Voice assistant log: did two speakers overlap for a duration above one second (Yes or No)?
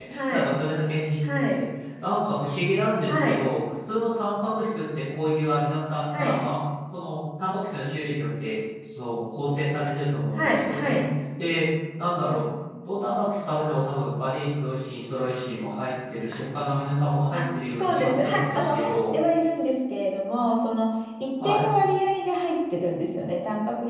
Yes